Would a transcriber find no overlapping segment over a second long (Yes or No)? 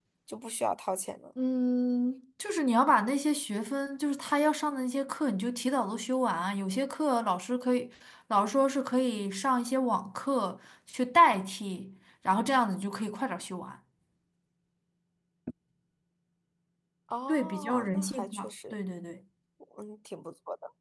No